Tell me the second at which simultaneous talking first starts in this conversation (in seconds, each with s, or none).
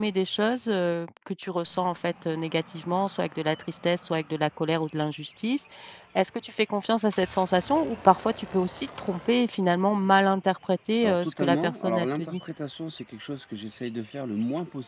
11.0 s